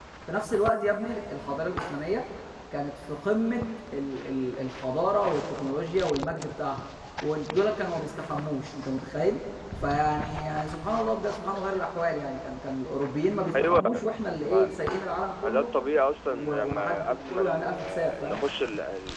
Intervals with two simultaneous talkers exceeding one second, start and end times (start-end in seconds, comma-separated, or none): 16.2-18.4